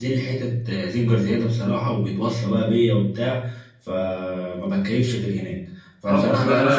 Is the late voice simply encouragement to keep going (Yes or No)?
No